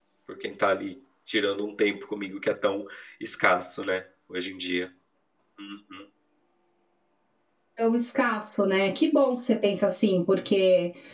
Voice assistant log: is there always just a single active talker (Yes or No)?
Yes